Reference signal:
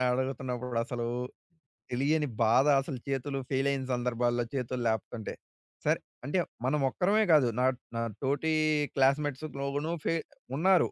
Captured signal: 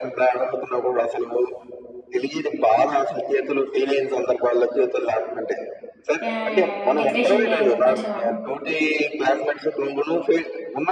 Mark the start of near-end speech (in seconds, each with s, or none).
6.2 s